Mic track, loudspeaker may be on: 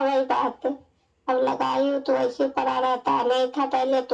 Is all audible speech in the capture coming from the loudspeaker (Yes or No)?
Yes